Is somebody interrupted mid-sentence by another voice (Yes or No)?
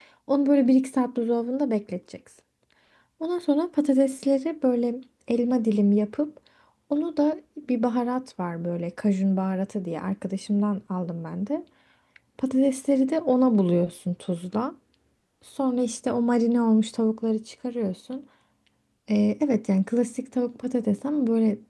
No